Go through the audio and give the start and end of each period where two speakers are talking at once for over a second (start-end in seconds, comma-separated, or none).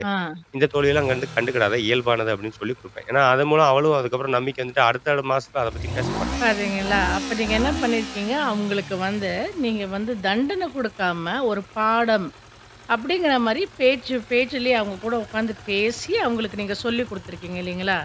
none